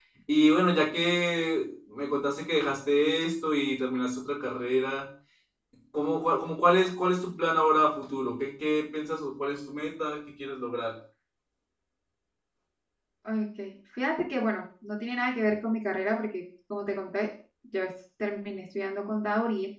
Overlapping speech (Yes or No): No